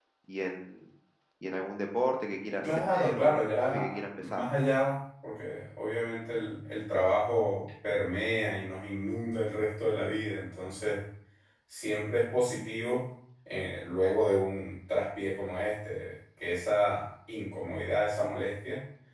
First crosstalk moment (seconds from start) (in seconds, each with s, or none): 2.6 s